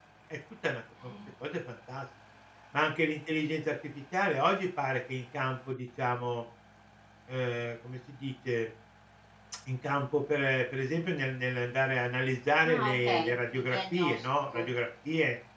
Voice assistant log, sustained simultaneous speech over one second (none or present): present